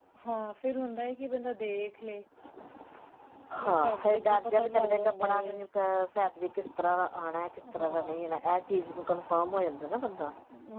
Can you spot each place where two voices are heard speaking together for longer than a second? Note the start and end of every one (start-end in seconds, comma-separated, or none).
3.6-5.4